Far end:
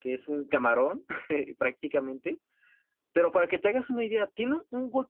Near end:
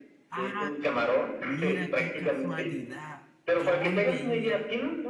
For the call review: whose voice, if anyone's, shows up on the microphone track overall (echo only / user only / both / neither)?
both